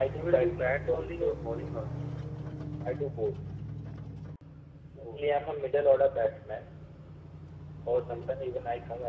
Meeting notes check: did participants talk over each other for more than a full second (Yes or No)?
Yes